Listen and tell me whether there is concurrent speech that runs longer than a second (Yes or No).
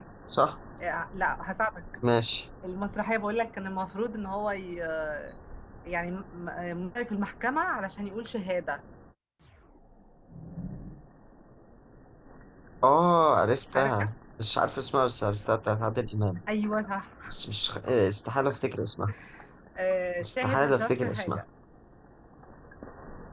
Yes